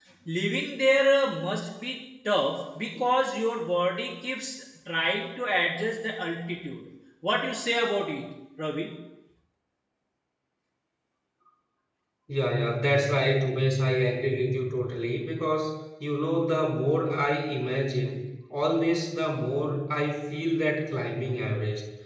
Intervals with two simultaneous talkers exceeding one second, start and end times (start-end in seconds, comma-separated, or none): none